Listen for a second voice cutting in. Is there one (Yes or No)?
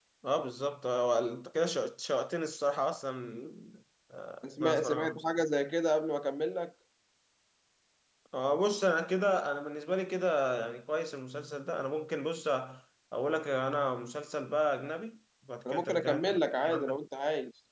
Yes